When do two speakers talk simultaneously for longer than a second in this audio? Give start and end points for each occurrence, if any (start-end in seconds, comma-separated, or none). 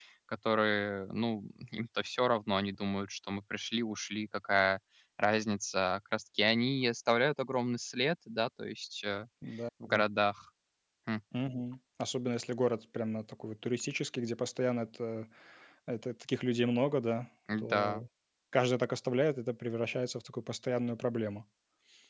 none